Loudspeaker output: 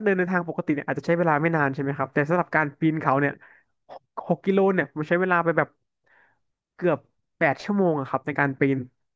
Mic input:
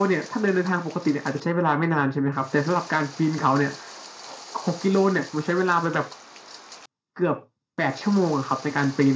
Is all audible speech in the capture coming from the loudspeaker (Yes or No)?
Yes